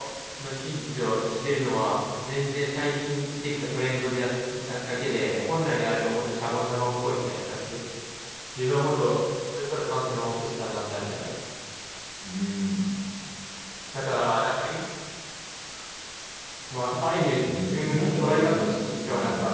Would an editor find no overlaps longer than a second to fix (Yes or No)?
No